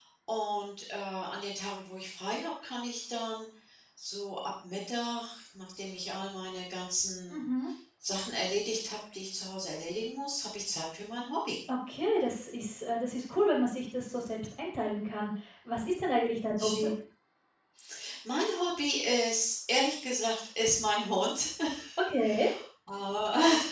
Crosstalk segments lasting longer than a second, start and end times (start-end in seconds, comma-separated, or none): none